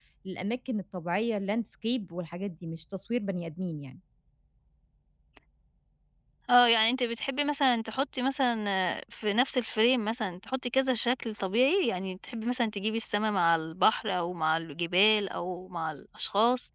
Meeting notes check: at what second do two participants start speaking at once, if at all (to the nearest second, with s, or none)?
none